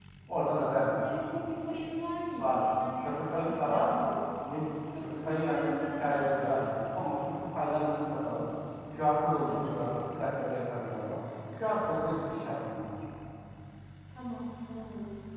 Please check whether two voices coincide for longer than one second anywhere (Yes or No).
Yes